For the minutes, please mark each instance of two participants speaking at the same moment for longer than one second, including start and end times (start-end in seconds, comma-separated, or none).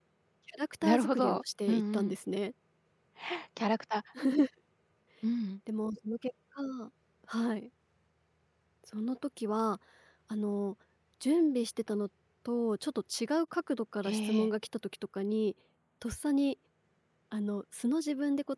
0.8-2.1